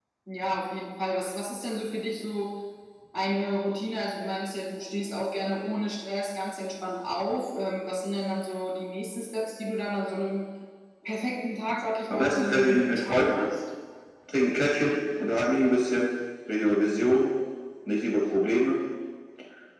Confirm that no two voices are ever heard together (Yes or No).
No